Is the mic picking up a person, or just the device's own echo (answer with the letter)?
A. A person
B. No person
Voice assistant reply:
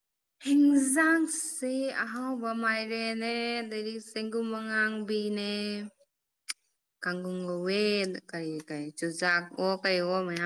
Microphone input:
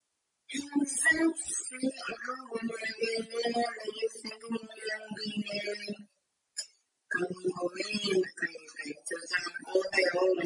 B